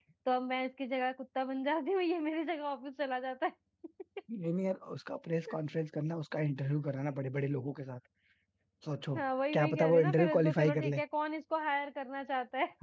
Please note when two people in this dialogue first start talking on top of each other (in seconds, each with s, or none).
9.5 s